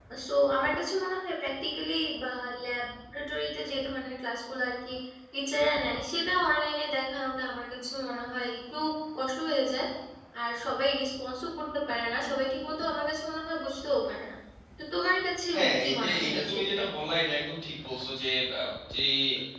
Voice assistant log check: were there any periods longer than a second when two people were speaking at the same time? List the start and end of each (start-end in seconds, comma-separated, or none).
15.6-16.8